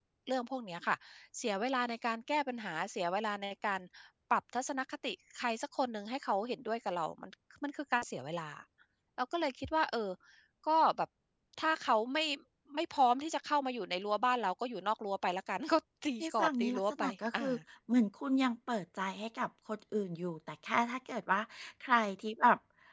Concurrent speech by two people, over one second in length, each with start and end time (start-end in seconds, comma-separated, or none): 16.2-17.4